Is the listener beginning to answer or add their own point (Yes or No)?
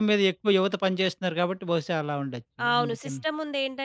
Yes